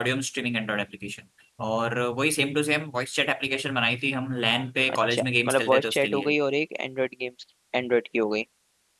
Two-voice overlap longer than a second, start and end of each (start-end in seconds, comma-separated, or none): 4.9-6.3